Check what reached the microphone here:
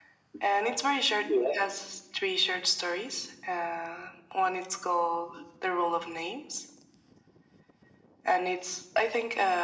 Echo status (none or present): present